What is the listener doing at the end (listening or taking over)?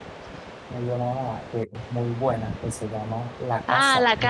taking over